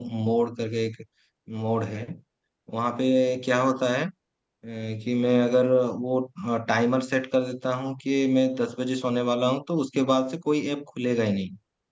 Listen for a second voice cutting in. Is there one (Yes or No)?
No